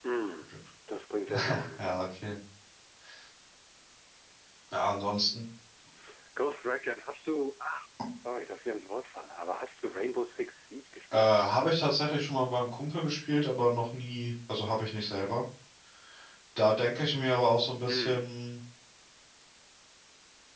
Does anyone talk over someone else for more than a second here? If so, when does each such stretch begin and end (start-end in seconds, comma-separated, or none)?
none